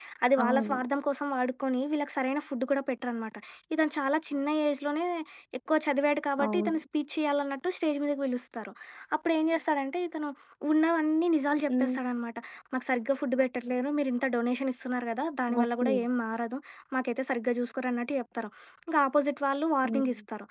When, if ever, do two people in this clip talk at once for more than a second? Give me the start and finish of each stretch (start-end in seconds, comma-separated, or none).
none